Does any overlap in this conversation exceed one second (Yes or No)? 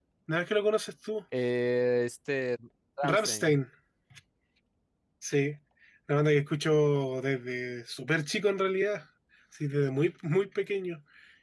No